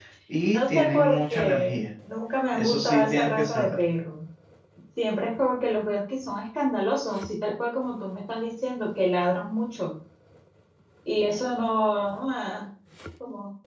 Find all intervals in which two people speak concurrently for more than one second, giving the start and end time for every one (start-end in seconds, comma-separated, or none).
0.5-1.8, 2.5-3.8